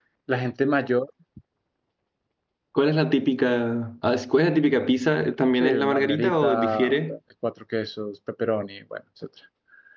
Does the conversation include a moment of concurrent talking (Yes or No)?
Yes